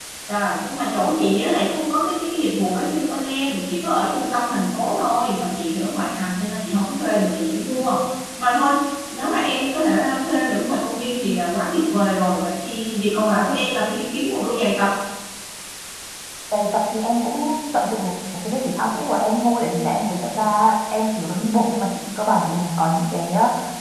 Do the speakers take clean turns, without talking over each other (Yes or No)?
Yes